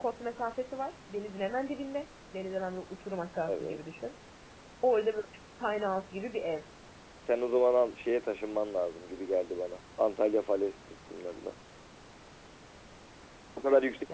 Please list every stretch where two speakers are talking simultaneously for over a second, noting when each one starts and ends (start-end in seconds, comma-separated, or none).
none